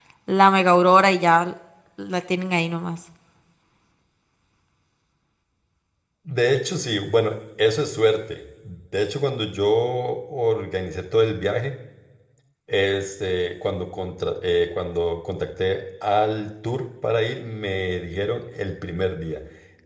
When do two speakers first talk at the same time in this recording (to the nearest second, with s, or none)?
none